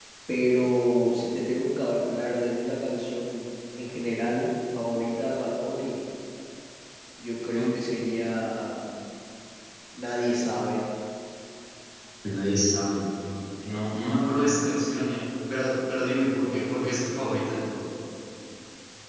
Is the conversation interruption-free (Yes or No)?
Yes